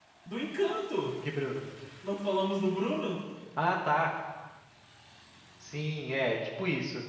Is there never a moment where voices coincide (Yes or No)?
Yes